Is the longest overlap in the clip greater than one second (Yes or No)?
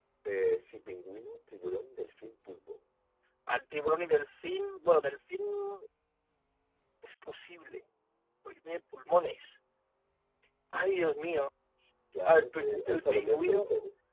Yes